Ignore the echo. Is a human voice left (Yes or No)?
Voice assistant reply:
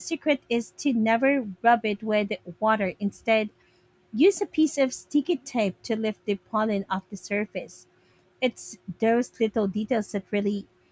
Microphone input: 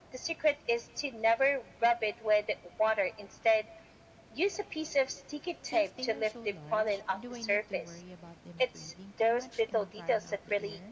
Yes